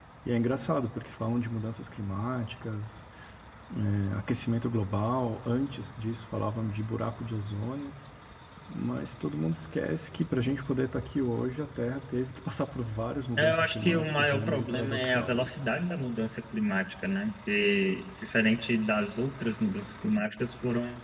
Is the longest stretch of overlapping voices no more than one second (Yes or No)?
No